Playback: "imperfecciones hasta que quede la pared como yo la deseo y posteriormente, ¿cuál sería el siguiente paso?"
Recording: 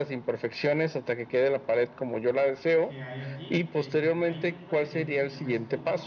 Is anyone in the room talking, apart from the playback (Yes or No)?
Yes